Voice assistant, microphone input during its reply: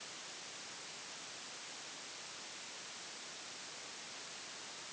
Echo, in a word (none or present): none